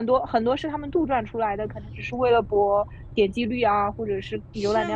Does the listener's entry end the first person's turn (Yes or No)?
Yes